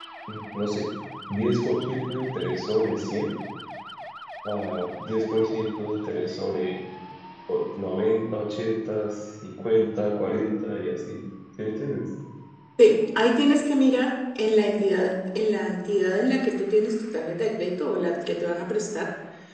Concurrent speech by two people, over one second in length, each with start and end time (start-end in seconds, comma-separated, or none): none